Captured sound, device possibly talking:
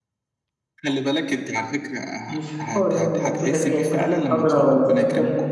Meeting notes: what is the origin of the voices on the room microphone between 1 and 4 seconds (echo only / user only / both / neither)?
both